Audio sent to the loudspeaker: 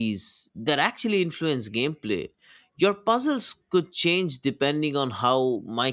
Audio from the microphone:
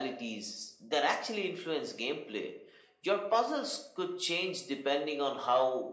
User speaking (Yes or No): No